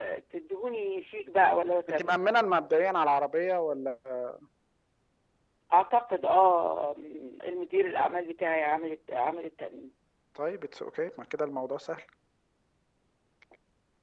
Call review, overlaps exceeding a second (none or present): none